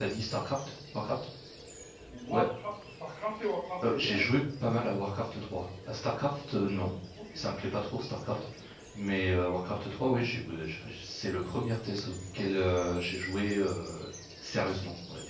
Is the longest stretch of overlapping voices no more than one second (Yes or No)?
Yes